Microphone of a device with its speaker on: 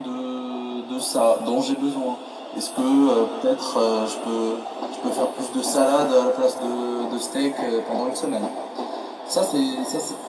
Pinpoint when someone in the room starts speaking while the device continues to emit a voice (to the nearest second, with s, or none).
none